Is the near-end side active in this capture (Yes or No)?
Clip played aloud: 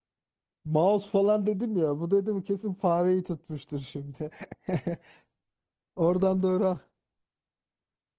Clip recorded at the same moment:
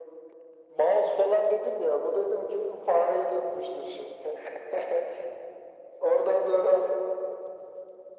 No